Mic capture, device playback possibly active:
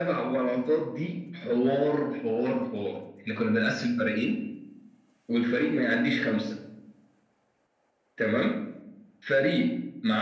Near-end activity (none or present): none